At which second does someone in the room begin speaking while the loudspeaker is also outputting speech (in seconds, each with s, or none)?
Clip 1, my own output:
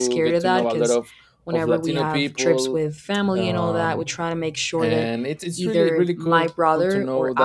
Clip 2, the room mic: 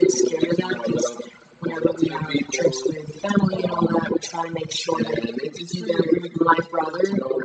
none